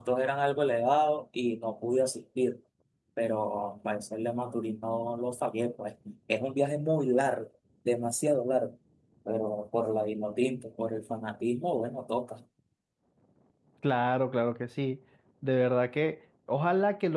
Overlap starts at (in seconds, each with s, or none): none